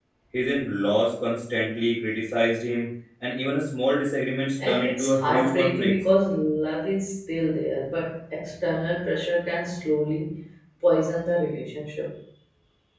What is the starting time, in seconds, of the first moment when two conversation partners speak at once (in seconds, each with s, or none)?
4.6 s